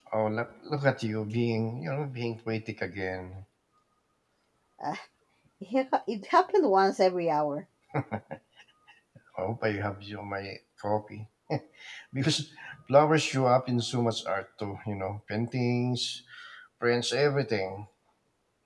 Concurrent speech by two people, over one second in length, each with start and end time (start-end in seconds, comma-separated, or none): none